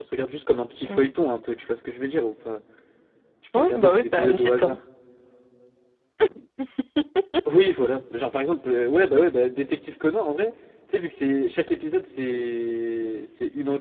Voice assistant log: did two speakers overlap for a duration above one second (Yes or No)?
Yes